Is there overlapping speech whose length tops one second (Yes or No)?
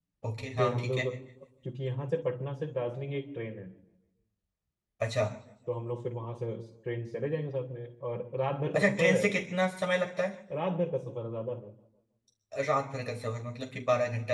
No